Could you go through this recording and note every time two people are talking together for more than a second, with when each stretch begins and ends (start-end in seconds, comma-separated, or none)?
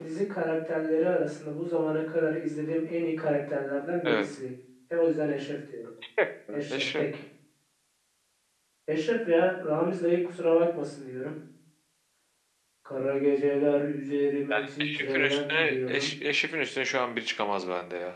14.8-16.1